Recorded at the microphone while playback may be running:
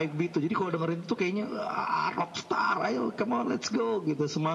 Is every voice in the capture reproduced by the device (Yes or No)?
Yes